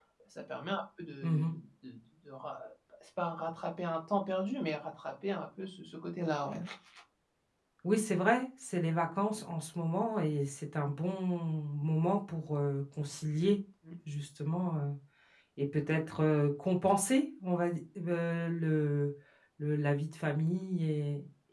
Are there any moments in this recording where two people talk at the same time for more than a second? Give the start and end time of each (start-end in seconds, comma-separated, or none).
none